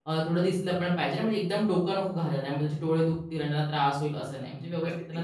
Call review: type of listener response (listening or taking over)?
taking over